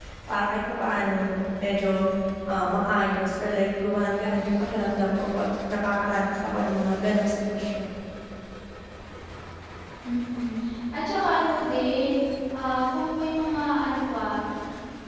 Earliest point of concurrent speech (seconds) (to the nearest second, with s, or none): none